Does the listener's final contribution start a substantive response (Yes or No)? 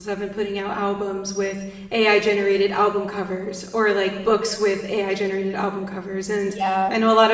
No